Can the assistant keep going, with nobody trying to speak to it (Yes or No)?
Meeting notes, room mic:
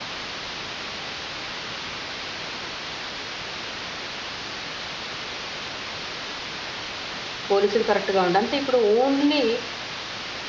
No